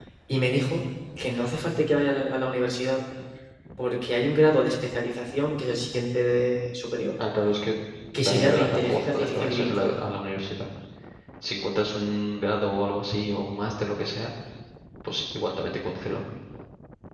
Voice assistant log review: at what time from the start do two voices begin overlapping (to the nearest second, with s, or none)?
8 s